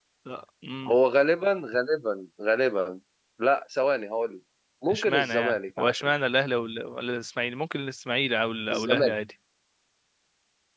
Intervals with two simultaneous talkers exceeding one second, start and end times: 4.9-6.1

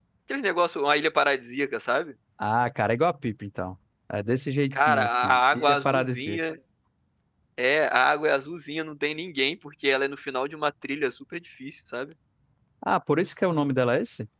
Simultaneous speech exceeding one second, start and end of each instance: 4.7-6.4

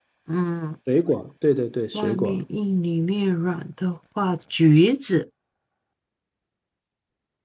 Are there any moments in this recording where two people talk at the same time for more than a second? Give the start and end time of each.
none

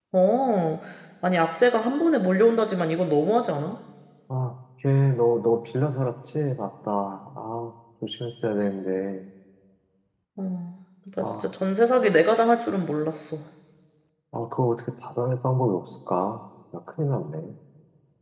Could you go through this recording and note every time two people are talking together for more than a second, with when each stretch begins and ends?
none

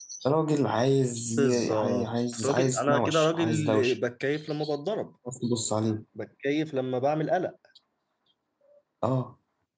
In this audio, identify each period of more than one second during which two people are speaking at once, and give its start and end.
1.4-4.0

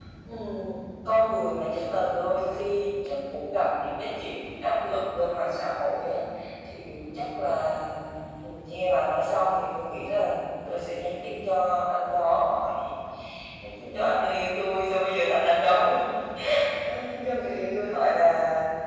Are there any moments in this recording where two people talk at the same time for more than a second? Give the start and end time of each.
none

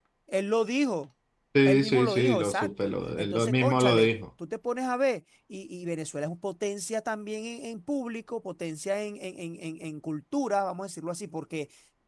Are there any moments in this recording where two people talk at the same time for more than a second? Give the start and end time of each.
1.6-4.1

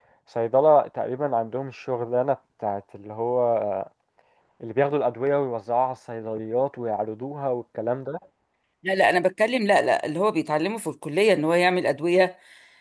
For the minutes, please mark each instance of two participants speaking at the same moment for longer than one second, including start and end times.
none

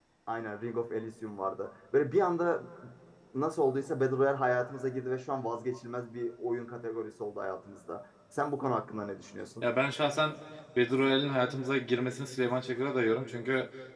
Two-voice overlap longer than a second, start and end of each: none

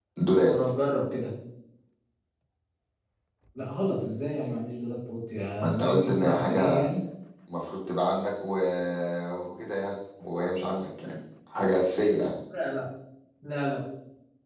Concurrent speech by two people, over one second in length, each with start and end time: 5.6-6.9

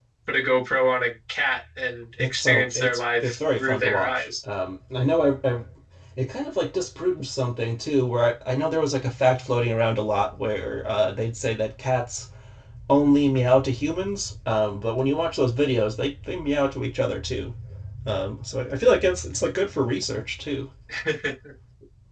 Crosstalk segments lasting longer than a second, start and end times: 2.2-4.3

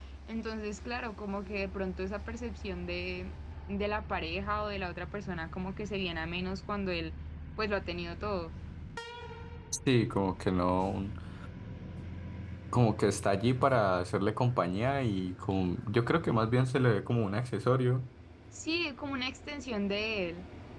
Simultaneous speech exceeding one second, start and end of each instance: none

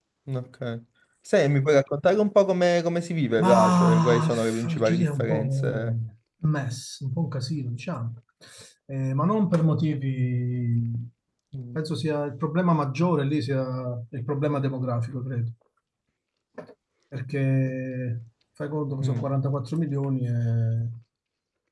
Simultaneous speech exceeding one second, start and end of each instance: 3.4-5.9

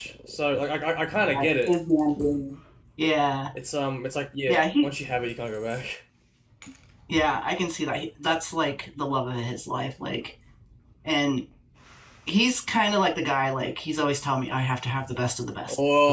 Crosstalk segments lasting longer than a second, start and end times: none

